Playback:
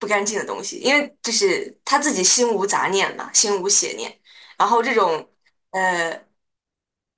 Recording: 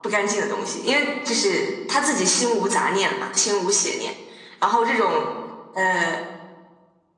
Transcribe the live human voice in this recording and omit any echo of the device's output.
none

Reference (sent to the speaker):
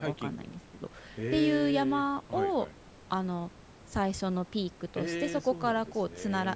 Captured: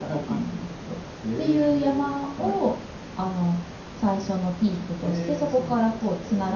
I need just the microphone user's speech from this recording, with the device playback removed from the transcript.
none

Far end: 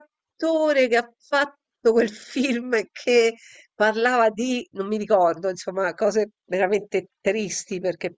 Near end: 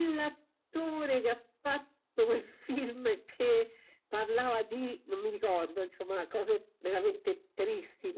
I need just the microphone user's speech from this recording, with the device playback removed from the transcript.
none

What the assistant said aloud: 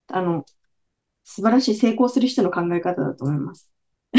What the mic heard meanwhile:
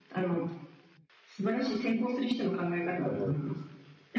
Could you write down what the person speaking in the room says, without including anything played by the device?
うん。

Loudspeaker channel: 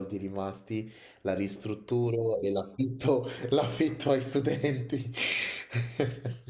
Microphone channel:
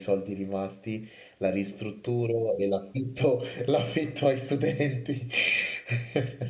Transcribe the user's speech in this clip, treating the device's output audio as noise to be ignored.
none

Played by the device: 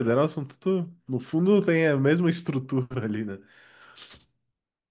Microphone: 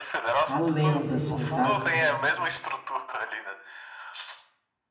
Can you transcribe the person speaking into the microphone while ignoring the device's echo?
a lenda, assim, sabe?

